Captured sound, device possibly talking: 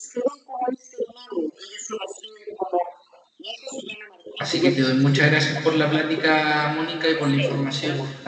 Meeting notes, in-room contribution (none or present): present